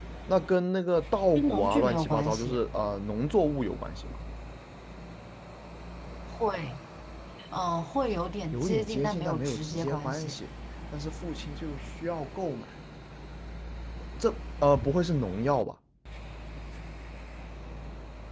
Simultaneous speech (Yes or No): Yes